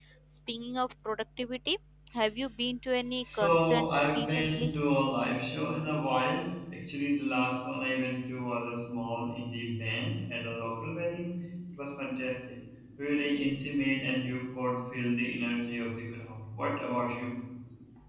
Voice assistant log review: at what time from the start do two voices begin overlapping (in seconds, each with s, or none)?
3.2 s